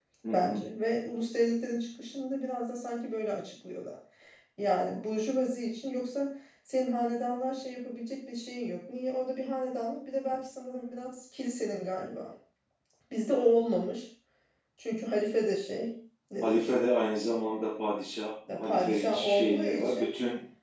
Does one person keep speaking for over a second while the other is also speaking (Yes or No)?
Yes